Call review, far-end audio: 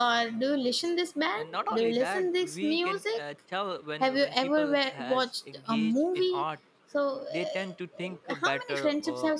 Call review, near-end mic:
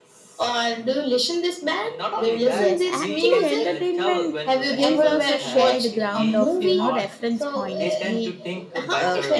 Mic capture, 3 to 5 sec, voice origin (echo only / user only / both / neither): both